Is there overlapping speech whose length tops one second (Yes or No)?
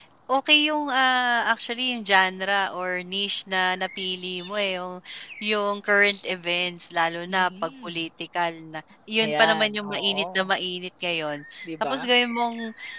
Yes